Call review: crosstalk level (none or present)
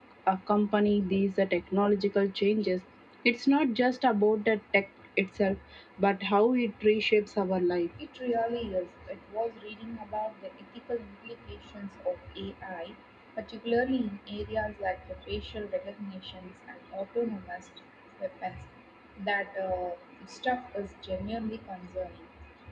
none